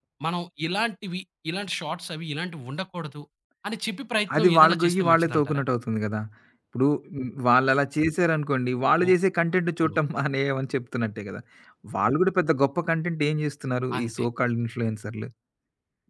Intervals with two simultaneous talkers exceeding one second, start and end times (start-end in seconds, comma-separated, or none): 4.4-5.6